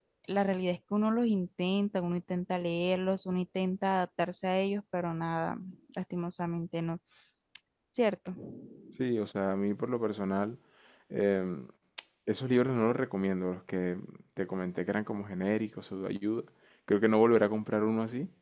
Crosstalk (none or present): none